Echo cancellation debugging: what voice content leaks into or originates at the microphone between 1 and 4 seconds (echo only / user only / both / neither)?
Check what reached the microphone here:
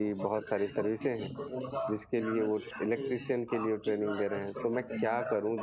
both